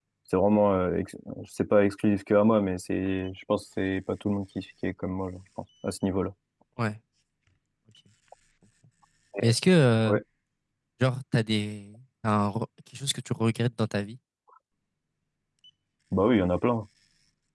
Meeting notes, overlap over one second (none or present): none